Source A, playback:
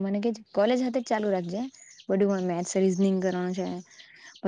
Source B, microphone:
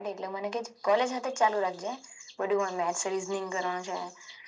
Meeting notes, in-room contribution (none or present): none